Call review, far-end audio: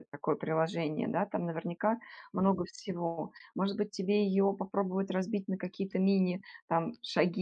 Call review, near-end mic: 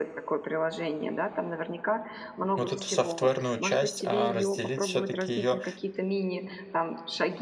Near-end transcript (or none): вот эту софтверную часть, а разделить все-таки ее